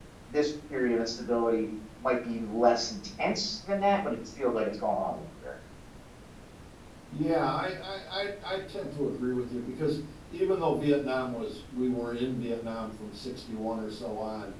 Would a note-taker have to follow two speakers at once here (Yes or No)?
No